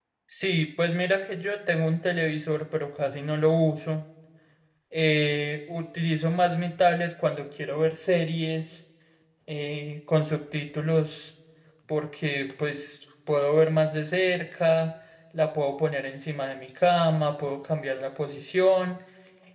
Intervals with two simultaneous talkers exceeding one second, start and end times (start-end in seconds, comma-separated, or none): none